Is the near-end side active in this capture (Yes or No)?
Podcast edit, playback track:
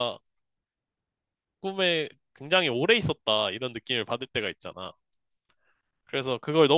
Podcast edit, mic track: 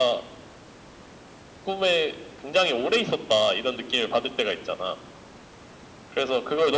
No